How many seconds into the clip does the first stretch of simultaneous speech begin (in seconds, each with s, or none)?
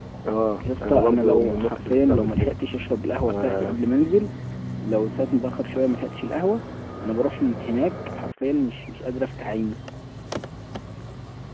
0.8 s